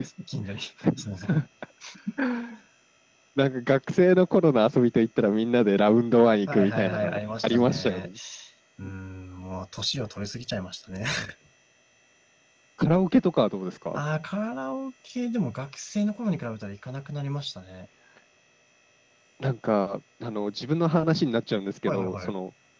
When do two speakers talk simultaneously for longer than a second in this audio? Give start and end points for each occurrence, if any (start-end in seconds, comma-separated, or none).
6.5-8.1